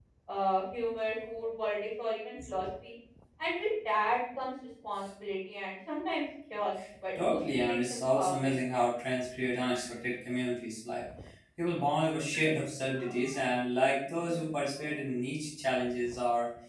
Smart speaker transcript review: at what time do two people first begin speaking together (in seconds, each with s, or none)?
7.3 s